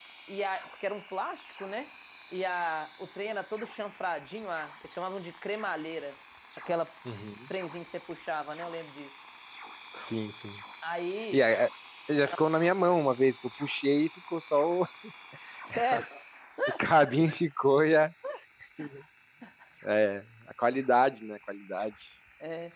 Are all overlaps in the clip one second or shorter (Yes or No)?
Yes